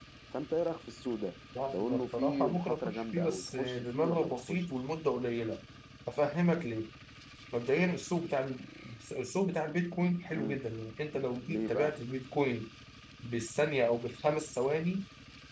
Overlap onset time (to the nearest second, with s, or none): 2 s